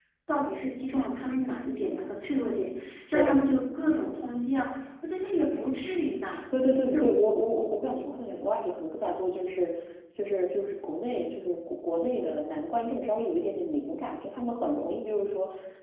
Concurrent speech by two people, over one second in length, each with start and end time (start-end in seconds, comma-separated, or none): none